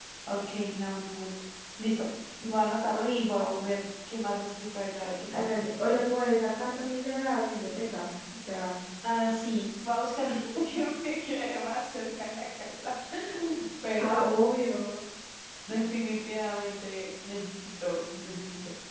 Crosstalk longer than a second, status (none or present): none